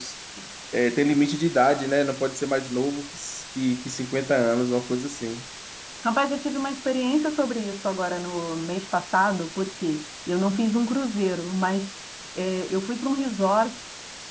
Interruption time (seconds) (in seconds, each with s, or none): none